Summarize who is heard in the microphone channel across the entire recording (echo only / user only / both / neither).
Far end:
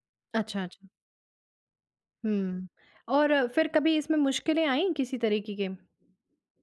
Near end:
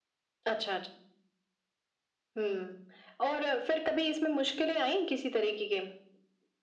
echo only